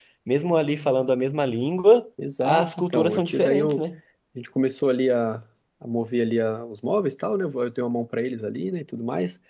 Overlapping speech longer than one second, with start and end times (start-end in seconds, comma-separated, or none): 2.4-3.8